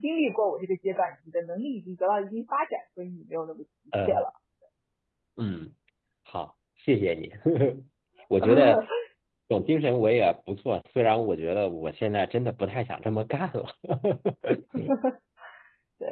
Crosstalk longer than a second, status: none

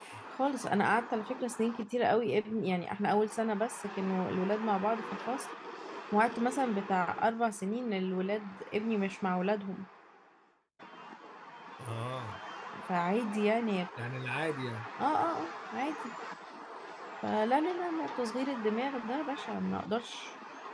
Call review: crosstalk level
none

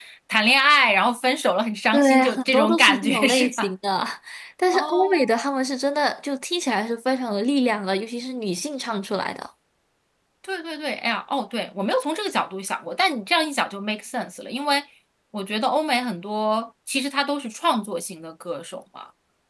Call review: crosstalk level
present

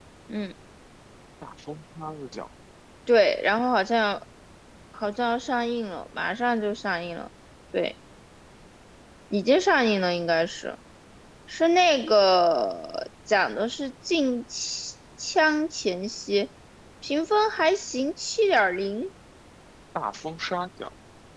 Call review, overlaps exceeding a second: none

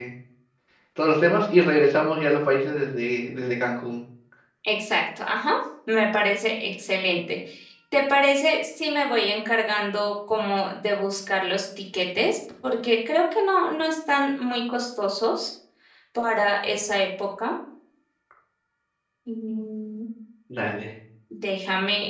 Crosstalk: none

